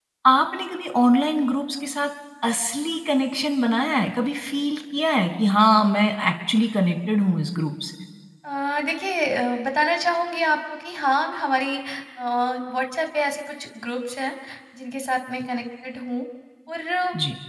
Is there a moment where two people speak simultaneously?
No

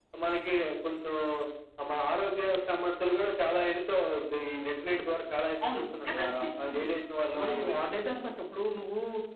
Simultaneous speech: Yes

